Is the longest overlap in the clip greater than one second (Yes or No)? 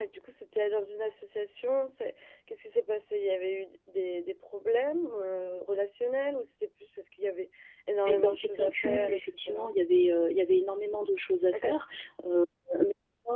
Yes